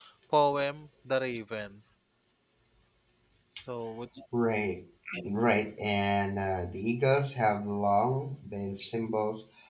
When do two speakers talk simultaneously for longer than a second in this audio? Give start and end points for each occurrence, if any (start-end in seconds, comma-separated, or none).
none